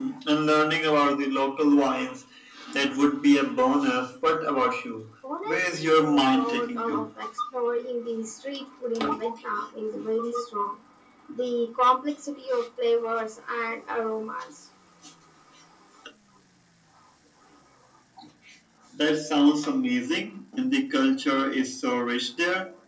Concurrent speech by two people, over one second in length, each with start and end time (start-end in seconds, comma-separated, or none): 5.4-7.0